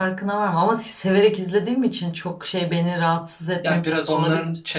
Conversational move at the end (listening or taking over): taking over